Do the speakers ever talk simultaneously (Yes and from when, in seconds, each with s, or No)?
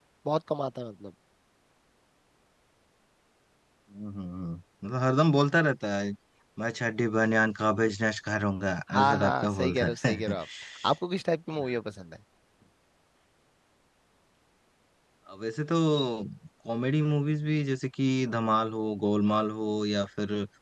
Yes, from 8.9 s